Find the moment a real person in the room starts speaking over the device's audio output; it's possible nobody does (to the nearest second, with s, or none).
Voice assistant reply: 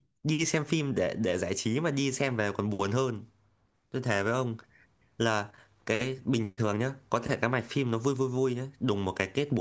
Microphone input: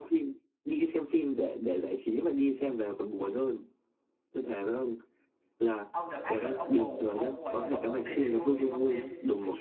6 s